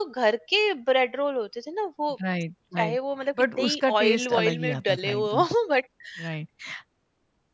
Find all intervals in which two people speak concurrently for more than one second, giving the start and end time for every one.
3.6-5.4

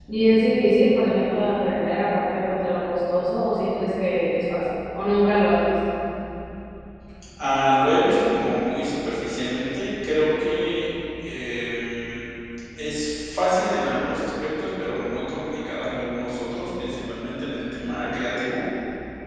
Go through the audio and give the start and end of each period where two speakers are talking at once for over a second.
none

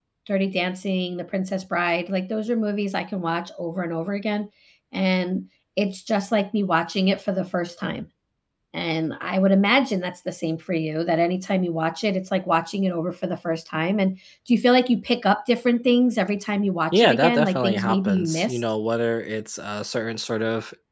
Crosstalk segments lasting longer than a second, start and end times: 16.9-18.6

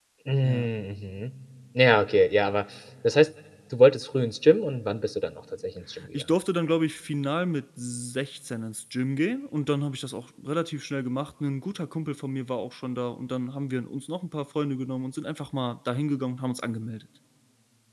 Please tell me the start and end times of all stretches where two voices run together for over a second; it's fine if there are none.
none

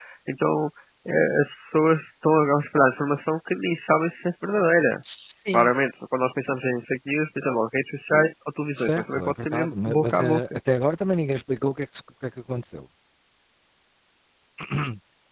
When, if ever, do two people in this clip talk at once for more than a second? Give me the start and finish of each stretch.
8.8-10.4

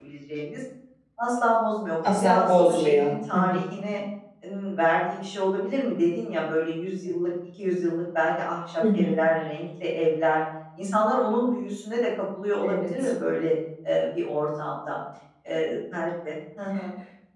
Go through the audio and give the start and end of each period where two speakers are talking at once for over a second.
2.0-3.6

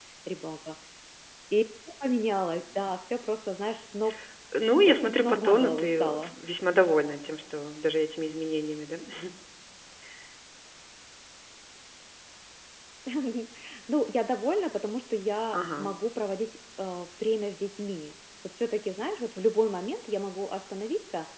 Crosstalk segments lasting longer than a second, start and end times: 4.9-6.3

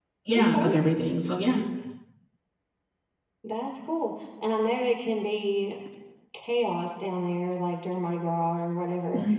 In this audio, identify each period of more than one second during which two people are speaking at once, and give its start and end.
none

